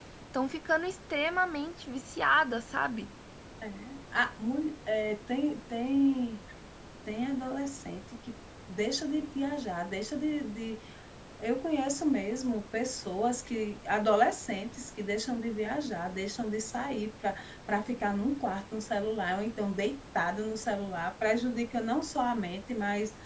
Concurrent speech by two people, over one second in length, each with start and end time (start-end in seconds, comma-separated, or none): none